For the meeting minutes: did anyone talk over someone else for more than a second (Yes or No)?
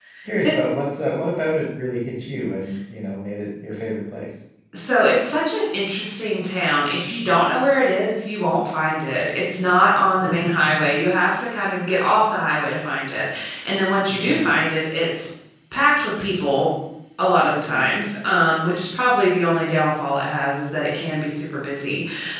No